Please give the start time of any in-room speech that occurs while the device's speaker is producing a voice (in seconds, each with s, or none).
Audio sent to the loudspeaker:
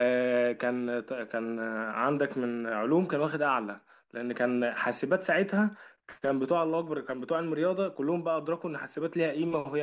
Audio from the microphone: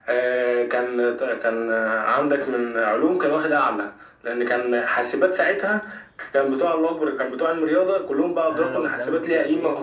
8.5 s